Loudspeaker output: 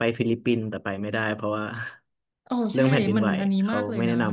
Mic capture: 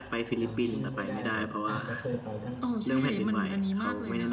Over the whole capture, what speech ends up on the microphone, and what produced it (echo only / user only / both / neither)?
both